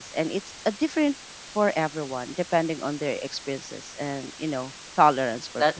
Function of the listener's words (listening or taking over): taking over